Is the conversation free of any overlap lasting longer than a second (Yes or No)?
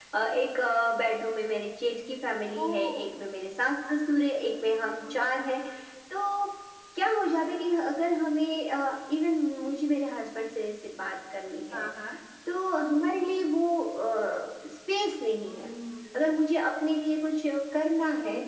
Yes